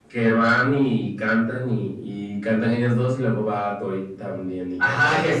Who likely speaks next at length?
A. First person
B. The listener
B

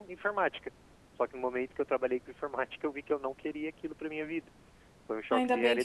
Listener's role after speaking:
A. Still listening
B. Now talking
B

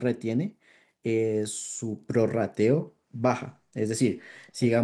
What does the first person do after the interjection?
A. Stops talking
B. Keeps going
A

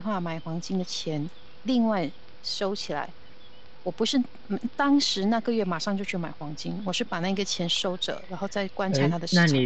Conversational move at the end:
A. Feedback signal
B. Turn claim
B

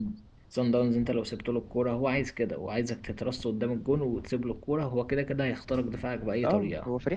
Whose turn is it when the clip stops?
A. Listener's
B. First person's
A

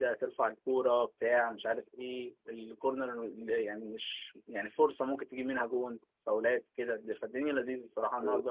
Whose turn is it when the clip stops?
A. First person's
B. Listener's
B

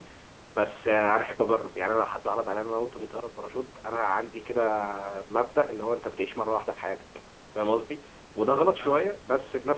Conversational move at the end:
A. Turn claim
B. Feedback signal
B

